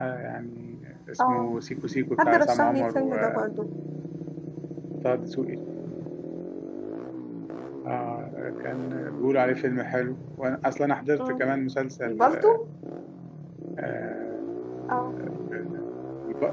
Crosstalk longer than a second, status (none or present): present